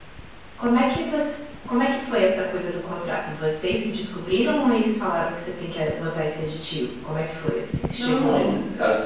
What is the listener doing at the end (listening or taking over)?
taking over